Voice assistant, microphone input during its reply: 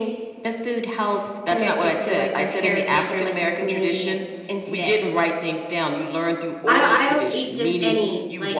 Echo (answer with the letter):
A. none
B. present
B